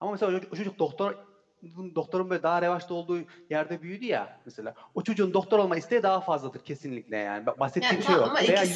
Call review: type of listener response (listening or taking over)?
taking over